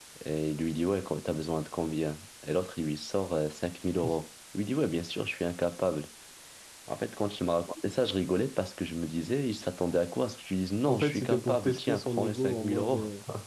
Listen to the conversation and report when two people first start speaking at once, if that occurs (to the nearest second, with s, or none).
11 s